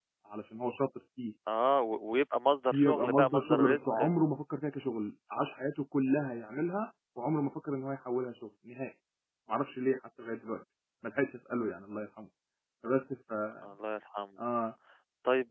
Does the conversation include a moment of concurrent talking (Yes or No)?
Yes